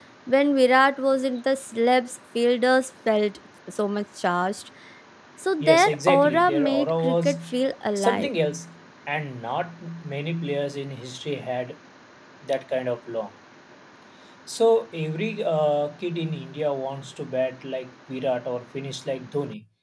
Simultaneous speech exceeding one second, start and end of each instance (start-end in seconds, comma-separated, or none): 5.6-7.4